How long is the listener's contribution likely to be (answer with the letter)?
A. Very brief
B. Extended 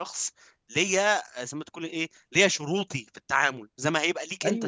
B